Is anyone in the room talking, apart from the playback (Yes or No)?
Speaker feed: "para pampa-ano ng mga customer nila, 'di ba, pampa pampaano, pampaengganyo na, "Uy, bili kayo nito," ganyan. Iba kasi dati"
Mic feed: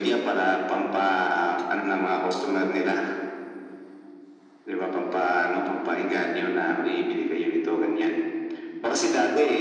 No